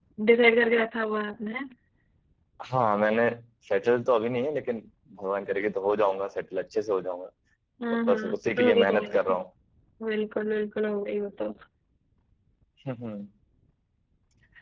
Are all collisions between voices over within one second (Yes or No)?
No